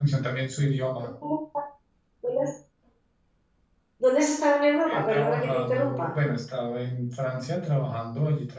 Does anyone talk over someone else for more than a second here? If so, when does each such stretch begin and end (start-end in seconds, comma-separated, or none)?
4.9-6.1